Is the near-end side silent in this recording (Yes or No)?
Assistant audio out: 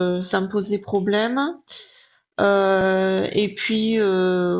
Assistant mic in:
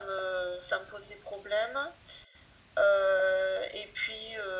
Yes